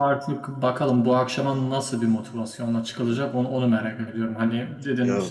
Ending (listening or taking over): listening